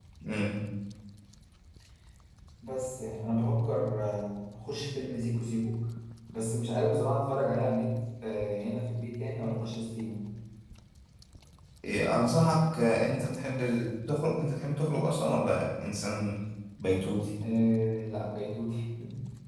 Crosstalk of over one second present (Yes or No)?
No